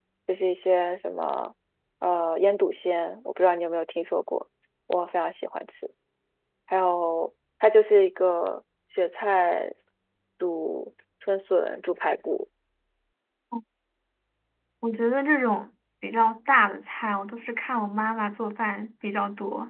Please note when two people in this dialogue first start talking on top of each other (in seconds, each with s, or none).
none